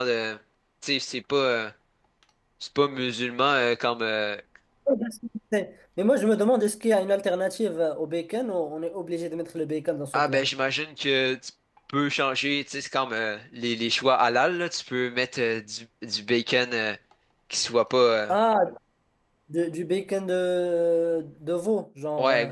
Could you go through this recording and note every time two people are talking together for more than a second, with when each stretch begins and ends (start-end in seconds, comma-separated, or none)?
none